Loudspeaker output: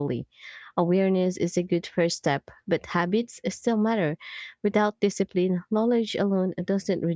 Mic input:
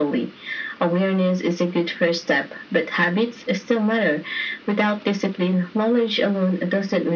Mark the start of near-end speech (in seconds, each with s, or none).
none